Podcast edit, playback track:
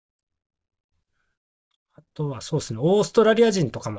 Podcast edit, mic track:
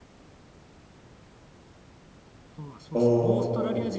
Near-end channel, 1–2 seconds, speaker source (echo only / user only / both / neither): neither